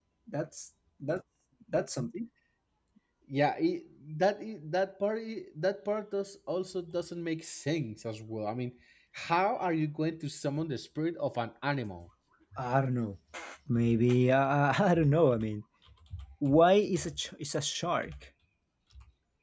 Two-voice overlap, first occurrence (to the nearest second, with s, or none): none